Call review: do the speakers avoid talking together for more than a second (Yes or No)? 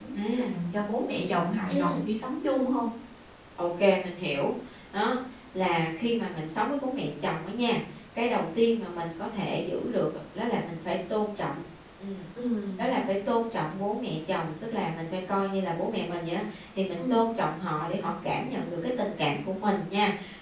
Yes